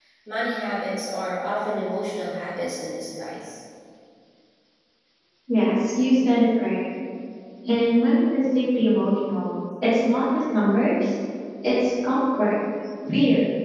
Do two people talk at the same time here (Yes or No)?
No